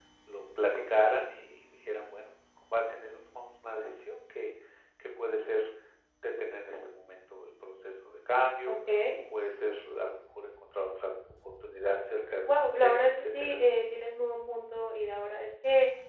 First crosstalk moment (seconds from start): 12.3 s

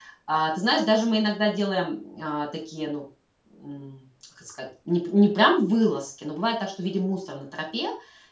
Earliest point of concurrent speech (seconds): none

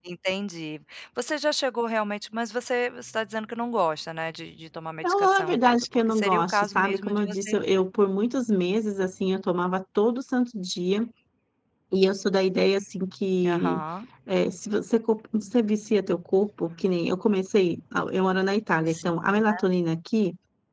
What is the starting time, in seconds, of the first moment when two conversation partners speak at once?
5.0 s

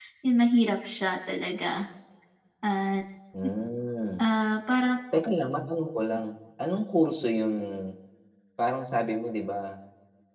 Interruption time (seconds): none

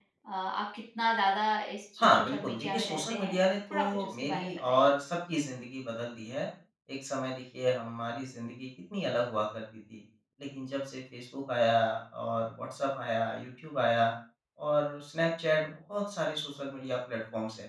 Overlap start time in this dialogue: 2.0 s

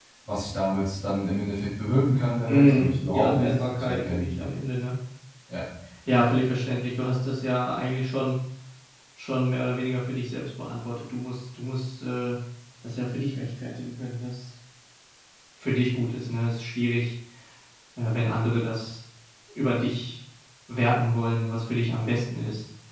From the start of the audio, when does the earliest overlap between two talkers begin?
2.5 s

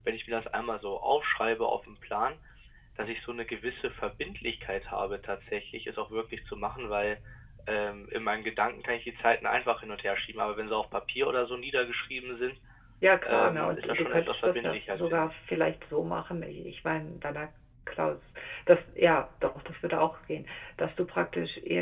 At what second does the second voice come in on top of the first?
13.2 s

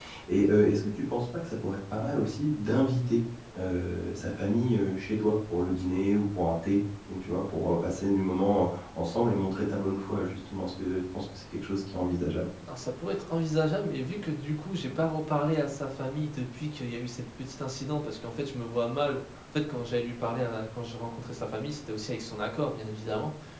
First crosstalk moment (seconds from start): none

